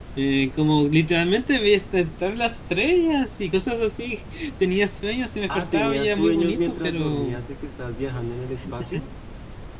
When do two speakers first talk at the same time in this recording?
5.5 s

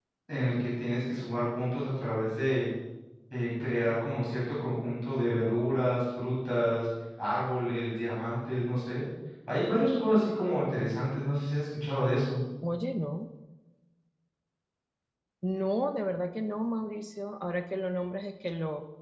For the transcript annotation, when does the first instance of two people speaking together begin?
none

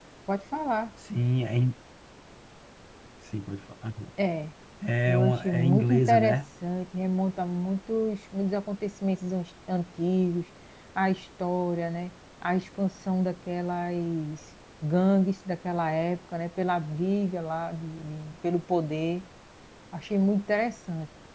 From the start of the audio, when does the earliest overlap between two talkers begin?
5.1 s

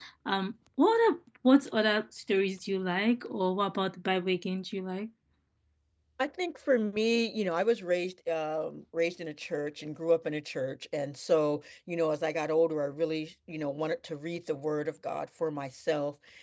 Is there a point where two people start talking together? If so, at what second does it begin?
none

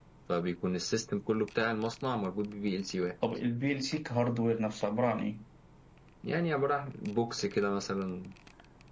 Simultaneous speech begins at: none

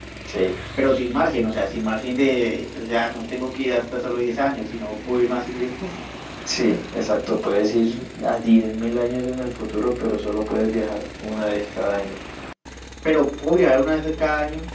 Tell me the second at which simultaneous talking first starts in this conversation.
none

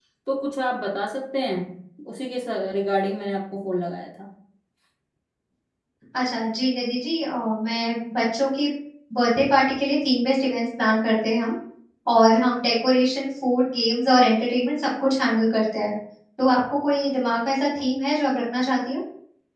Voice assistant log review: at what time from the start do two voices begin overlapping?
none

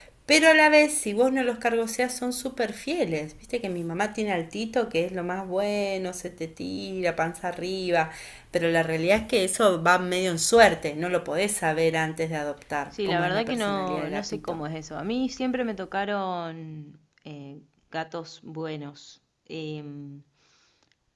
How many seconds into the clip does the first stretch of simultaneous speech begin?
12.9 s

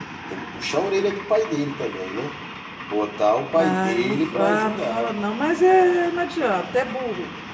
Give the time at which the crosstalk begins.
3.5 s

